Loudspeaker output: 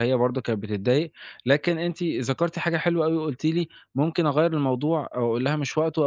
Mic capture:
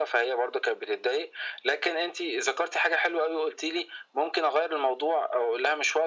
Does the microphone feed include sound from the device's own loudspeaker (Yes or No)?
Yes